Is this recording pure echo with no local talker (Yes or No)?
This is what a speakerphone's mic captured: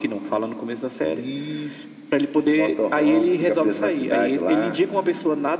Yes